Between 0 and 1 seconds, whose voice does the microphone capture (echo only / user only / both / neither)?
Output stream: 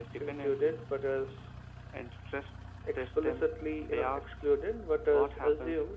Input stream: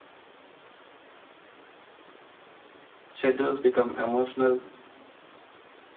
neither